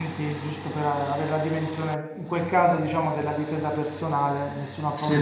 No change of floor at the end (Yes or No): Yes